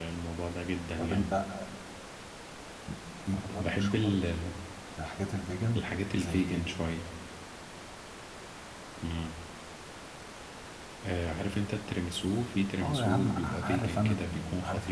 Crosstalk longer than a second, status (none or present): present